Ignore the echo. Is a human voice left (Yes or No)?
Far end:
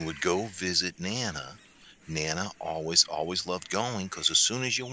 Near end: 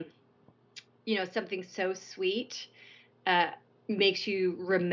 Yes